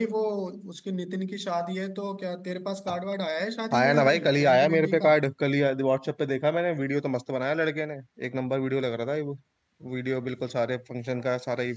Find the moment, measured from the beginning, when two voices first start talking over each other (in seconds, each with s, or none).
3.7 s